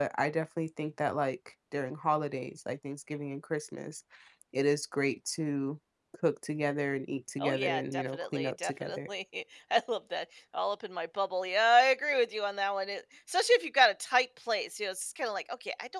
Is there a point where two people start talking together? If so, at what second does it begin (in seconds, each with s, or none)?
7.4 s